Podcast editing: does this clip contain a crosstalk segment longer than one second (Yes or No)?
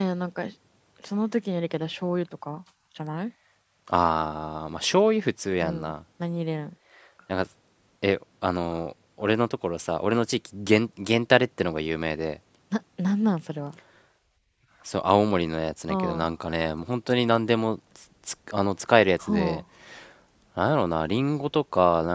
No